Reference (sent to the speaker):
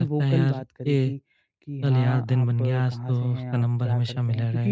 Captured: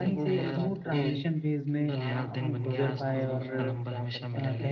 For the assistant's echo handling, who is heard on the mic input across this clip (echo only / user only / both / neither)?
both